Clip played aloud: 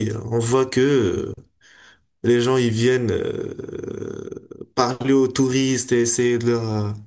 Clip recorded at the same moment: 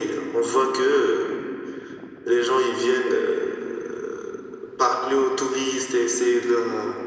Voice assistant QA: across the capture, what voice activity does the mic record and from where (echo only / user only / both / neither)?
echo only